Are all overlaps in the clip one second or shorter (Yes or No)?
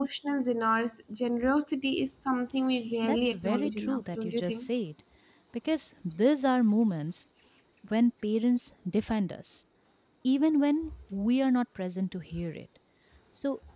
No